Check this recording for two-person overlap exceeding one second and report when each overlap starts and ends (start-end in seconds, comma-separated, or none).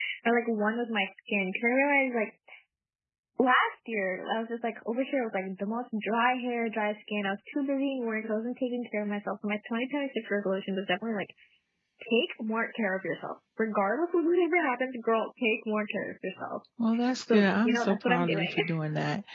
17.3-18.6